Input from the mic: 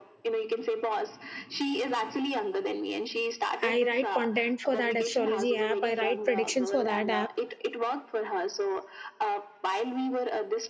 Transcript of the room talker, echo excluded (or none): I write content for that astrology app, I write predictions for that app